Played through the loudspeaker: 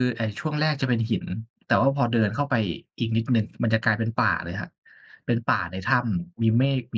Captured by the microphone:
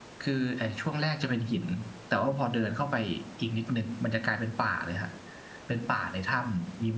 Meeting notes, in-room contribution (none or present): none